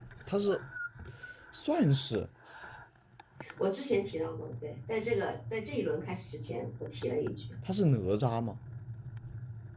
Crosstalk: none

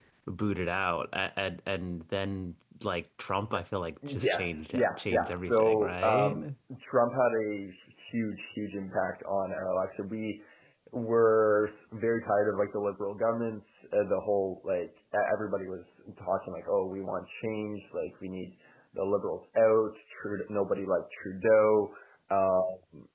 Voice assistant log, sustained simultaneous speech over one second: present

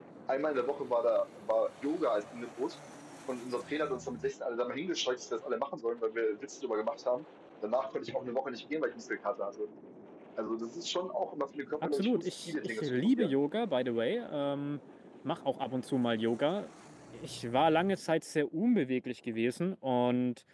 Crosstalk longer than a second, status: present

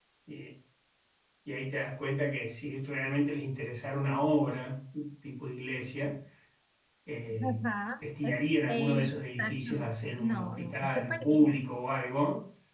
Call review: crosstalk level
present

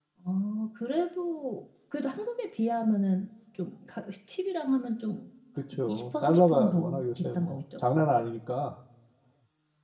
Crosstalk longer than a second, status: present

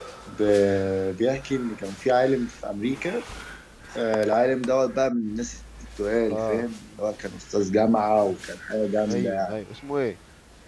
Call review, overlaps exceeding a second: none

